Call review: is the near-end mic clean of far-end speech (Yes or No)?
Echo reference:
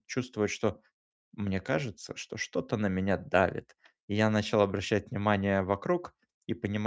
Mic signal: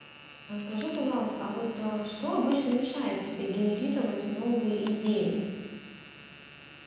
Yes